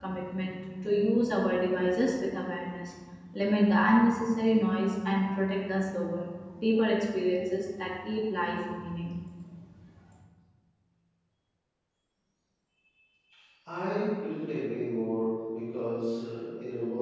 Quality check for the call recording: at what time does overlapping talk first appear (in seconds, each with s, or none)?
none